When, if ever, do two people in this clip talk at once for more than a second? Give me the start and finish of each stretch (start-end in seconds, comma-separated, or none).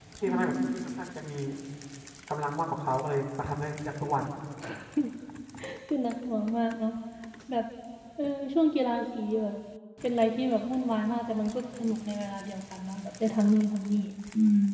none